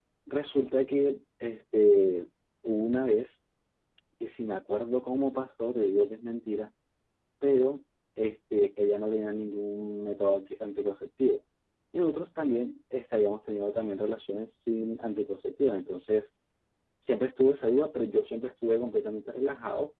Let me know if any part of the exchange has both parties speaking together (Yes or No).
No